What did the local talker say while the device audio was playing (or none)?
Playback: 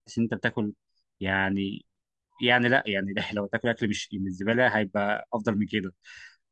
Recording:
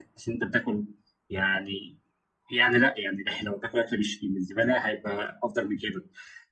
none